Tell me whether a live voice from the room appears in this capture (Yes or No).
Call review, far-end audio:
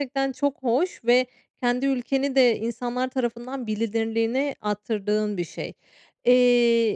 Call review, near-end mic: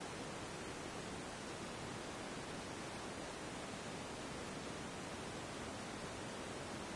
No